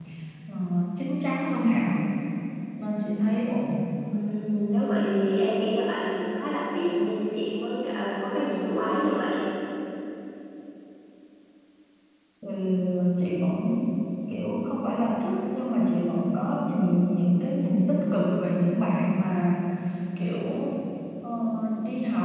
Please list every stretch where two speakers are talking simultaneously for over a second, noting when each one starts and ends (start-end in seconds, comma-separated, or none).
none